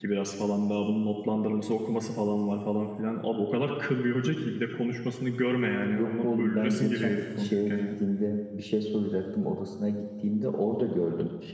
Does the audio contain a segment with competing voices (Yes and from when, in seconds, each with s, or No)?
Yes, from 5.9 s